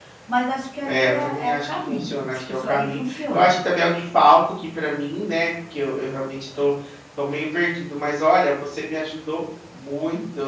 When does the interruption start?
0.8 s

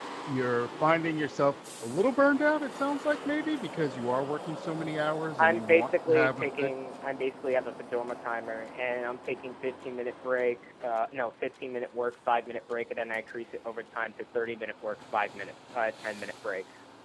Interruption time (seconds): 5.4 s

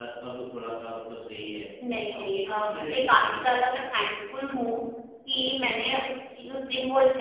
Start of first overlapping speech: 2.1 s

